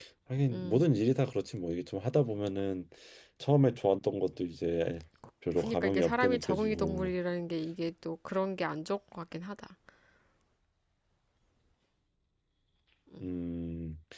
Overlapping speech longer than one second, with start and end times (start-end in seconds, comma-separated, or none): 5.6-7.1